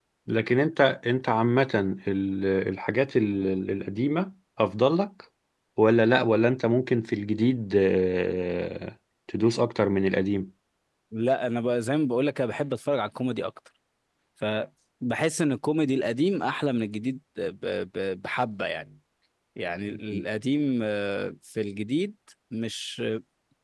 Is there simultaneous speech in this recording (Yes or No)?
No